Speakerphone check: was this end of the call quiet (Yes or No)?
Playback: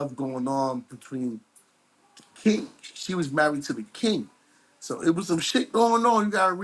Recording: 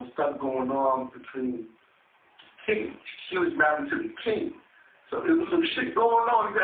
Yes